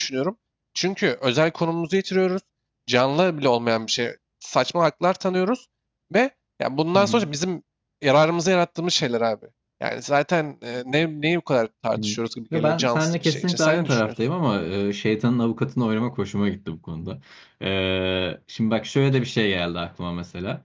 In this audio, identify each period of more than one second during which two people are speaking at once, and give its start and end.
12.5-14.1

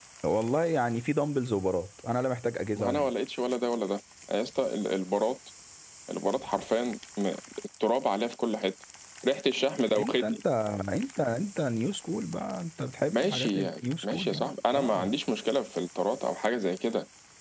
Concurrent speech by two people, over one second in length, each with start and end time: 13.1-15.1

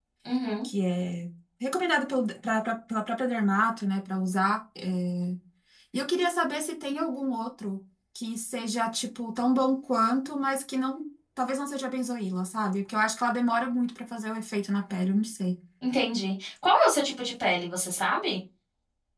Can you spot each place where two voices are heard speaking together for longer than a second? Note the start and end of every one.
none

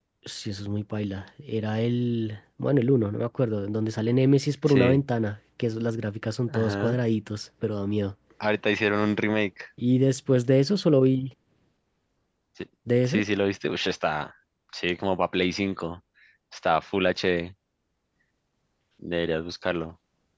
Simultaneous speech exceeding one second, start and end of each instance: none

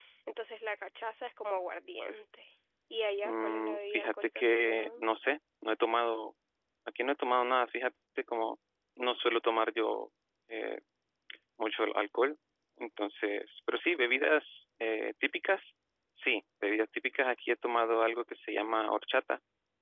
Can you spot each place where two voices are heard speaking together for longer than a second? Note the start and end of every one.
3.2-5.0

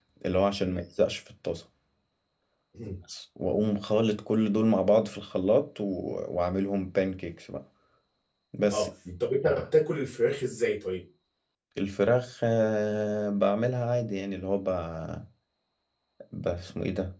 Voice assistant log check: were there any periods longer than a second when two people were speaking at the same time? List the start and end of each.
none

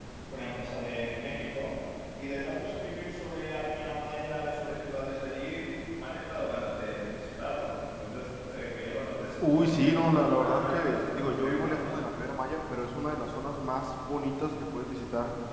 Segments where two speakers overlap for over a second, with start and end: 9.6-11.8

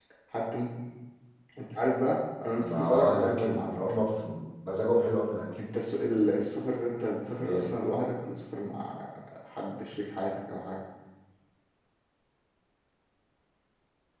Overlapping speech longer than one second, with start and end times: 2.6-3.8

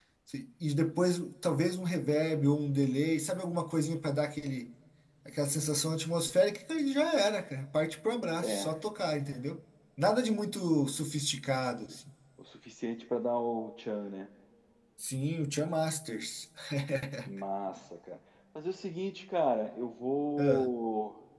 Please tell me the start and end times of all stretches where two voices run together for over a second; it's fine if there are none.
none

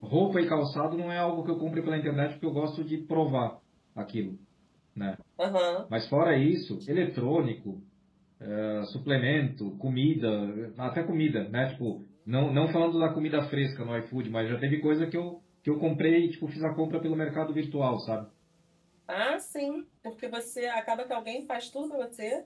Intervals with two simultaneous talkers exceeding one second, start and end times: none

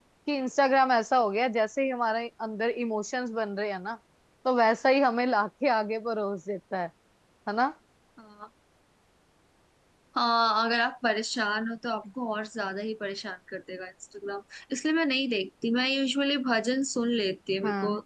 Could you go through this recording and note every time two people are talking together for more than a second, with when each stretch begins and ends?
none

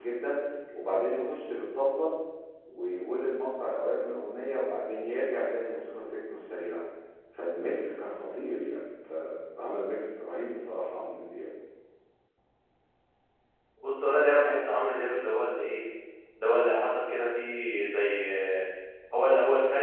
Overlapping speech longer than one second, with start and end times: none

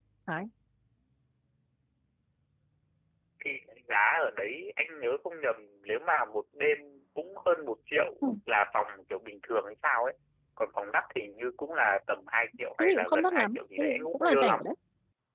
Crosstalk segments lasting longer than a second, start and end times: 12.8-14.6

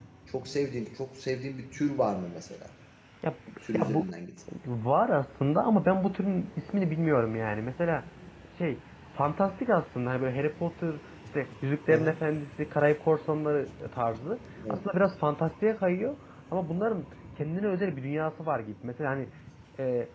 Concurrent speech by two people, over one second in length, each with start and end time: none

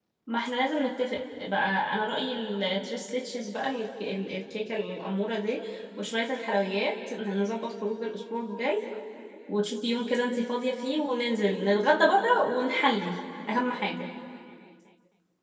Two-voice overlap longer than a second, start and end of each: none

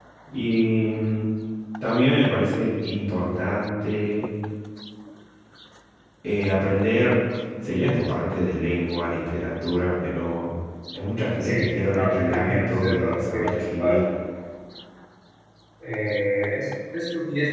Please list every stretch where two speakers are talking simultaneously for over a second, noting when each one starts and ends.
11.9-14.0

